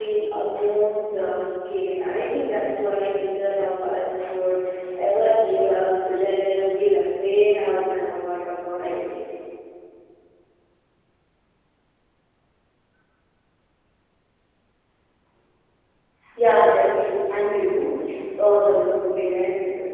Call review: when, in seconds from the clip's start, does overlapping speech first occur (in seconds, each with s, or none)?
none